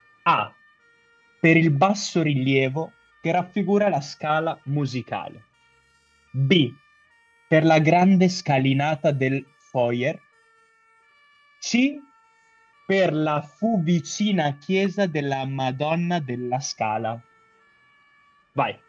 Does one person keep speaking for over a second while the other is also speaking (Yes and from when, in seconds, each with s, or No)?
No